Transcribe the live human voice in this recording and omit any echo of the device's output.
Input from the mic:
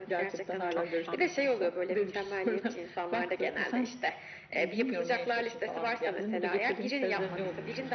Çok güzel.

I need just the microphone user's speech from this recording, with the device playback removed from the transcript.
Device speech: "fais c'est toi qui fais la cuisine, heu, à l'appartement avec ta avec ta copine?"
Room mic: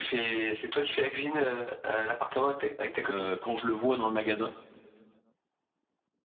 heu, quand je le vois dans le magasin

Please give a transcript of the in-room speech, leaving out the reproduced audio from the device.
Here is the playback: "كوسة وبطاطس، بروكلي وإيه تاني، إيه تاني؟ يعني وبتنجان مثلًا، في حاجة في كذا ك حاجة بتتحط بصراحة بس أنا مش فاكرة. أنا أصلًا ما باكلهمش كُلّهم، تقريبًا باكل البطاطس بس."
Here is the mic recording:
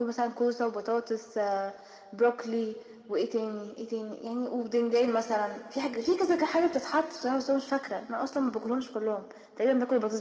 none

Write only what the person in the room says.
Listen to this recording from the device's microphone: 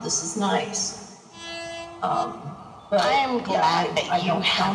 none

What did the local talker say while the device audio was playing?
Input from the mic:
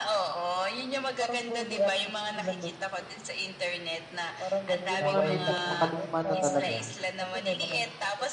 yung mga medyo makaluma na talaga.

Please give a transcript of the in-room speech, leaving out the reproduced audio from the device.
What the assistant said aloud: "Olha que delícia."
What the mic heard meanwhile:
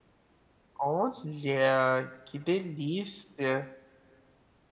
none

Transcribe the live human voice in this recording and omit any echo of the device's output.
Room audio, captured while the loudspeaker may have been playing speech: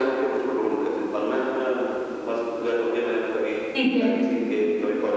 ठीक है।

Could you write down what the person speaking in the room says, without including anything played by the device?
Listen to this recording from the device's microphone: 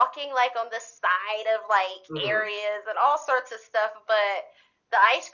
Mhm.

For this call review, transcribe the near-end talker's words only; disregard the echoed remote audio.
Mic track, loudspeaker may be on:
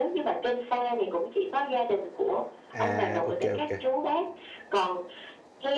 À, ô kê, ô kê.

